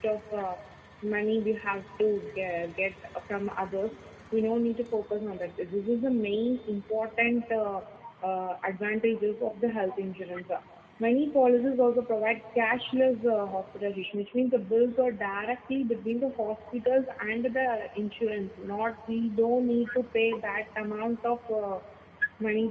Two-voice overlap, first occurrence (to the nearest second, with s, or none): none